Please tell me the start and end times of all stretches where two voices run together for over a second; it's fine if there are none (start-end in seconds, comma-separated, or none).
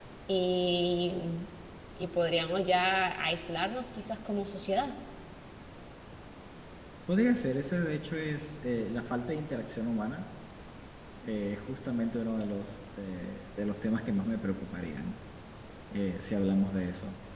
none